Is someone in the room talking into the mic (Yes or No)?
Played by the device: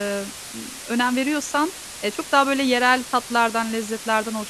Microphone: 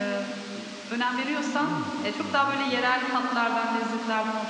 Yes